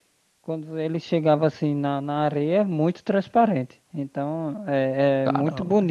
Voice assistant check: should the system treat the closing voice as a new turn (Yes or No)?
No